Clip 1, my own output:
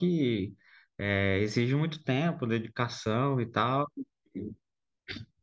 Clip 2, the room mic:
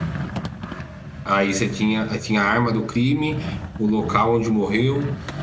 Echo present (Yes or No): No